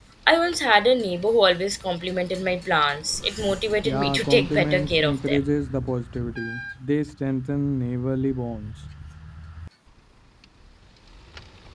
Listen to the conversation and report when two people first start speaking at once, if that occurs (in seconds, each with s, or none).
3.8 s